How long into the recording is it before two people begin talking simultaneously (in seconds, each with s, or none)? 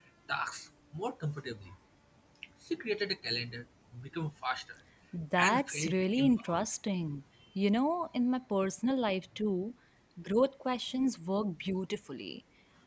5.4 s